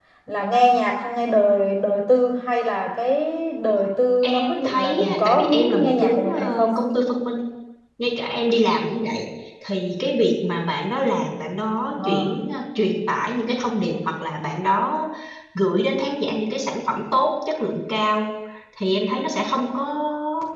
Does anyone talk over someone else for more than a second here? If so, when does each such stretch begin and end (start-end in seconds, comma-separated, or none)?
4.2-6.7